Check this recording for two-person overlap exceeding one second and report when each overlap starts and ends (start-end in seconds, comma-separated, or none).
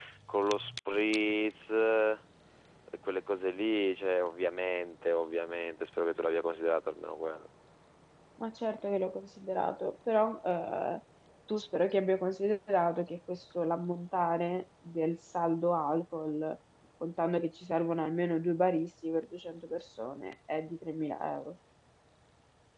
none